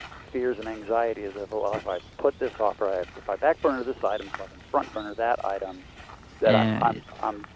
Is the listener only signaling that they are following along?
Yes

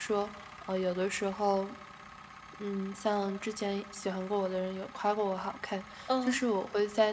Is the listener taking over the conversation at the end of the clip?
No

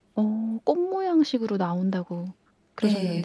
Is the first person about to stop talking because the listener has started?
Yes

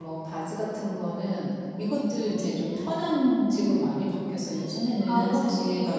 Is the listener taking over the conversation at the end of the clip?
No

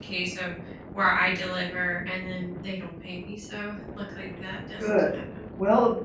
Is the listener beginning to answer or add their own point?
Yes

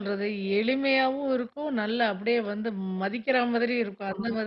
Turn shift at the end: Yes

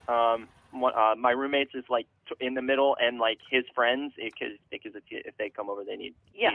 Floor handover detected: No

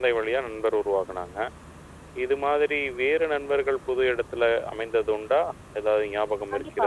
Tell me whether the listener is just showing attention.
No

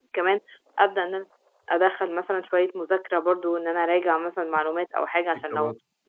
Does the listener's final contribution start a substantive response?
No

